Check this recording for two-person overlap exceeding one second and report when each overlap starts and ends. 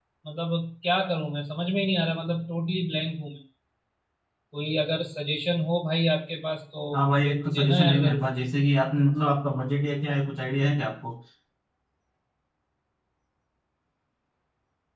6.9-8.3

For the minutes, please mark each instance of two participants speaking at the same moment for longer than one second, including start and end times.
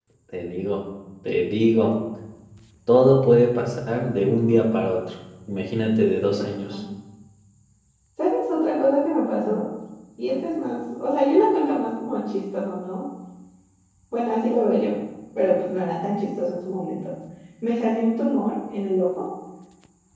none

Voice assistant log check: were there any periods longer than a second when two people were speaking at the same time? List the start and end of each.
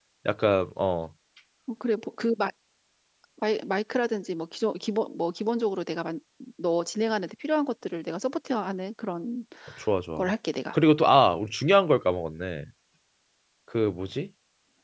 none

